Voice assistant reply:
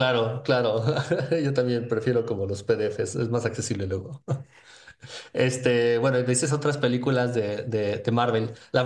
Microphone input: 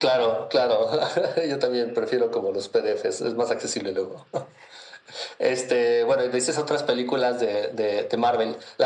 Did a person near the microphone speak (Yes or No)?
No